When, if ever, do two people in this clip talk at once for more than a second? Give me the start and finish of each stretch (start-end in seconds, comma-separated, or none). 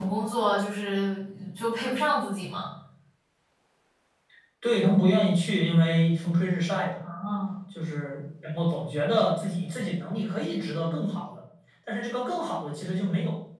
none